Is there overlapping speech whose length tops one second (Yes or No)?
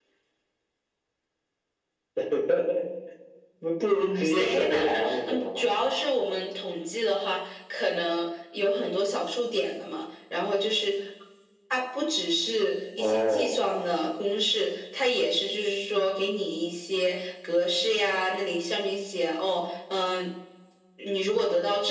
Yes